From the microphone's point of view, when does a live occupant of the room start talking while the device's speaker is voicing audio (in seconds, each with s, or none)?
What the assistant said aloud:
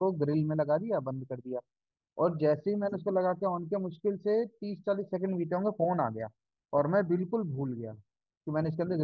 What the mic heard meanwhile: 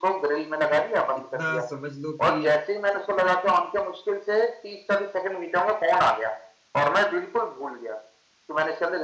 1.2 s